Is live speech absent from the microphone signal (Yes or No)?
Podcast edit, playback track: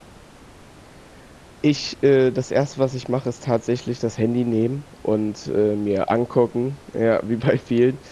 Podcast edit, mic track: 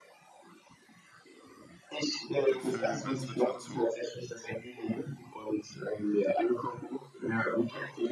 No